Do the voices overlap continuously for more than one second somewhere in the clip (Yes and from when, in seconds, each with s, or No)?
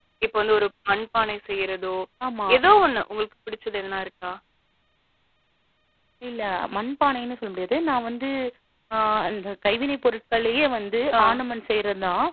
No